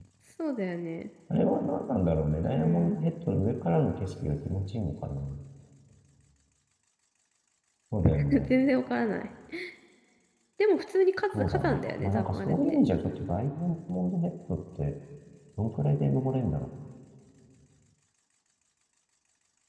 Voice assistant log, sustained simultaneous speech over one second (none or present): present